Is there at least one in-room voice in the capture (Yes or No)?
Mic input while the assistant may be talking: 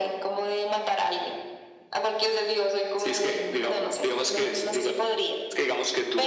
No